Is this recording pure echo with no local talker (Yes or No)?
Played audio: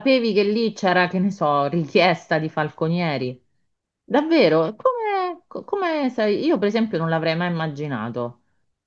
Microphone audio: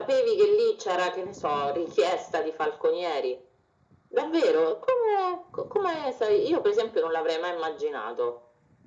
Yes